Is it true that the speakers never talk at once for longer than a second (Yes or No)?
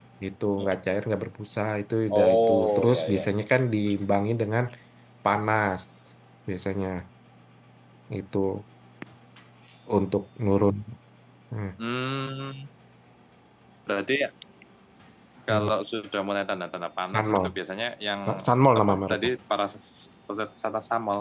No